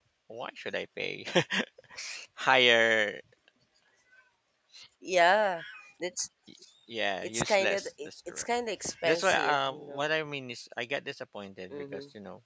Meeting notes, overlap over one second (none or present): present